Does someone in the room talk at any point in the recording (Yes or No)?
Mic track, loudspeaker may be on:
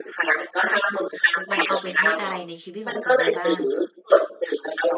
Yes